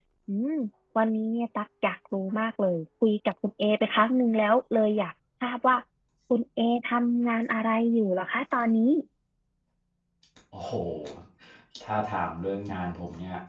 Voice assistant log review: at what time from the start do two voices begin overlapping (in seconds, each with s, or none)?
none